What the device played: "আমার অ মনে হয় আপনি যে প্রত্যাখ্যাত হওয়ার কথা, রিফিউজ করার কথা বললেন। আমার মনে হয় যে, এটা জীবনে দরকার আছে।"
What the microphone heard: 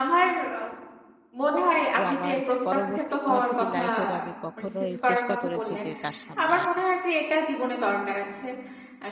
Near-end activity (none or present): present